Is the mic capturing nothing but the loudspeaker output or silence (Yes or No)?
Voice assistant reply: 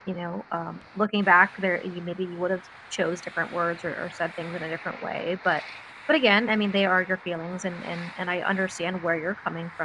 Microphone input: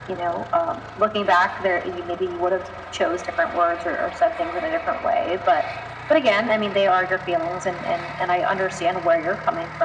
Yes